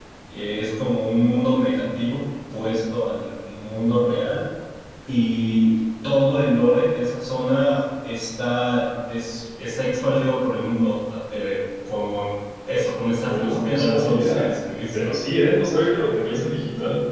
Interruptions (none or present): present